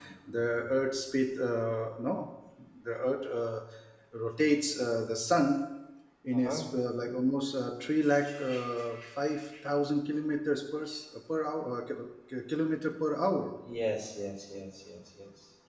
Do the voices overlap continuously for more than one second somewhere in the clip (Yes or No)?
No